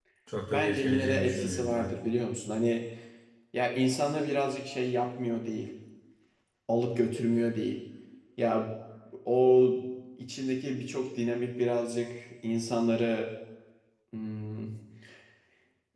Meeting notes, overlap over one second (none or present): present